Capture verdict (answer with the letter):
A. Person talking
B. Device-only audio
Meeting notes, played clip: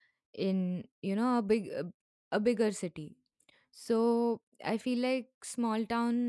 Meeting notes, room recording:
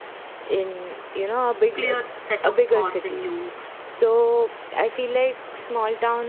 A